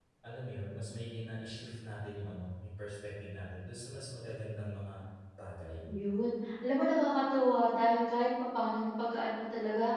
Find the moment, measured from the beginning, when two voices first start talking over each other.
none

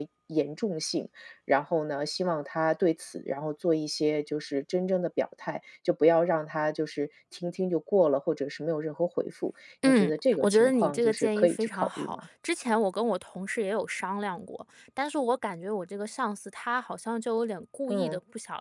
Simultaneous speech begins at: 9.8 s

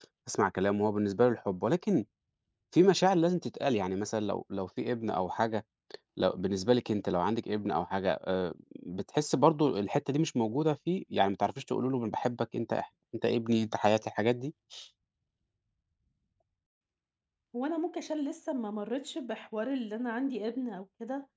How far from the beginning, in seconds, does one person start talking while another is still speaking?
none

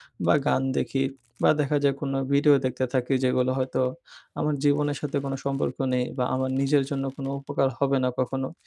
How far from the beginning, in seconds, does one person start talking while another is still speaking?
none

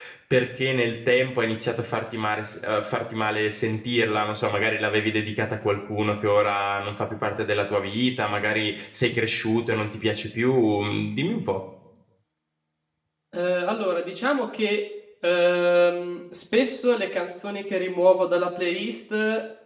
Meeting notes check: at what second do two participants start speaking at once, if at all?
none

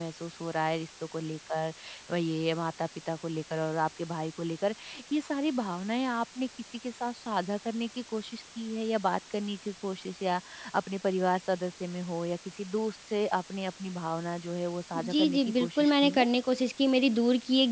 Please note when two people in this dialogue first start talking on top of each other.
14.9 s

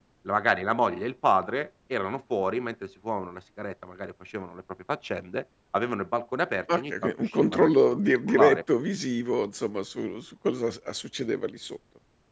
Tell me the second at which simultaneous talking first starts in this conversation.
6.7 s

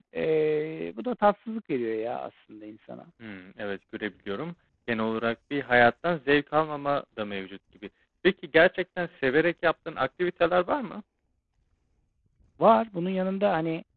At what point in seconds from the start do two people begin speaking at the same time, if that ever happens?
none

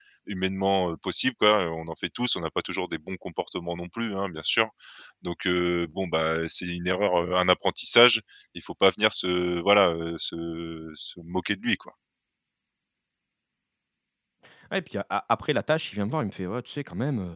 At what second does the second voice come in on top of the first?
none

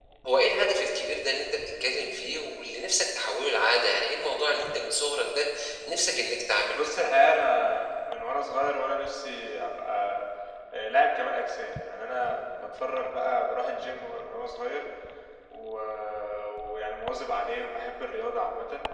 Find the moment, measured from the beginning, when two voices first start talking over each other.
none

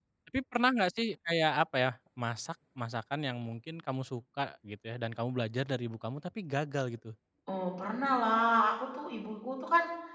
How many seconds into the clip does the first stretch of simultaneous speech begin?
none

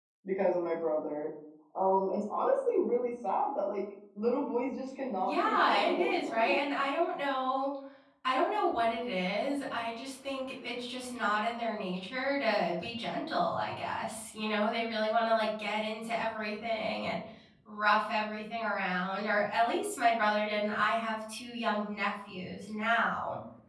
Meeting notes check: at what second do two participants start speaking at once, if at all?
5.2 s

